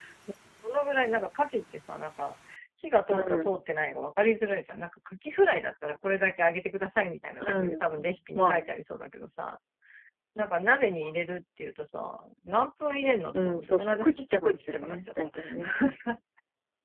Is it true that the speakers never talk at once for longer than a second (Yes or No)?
No